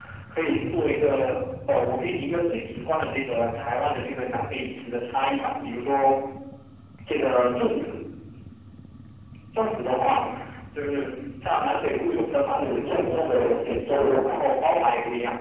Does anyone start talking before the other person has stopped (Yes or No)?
Yes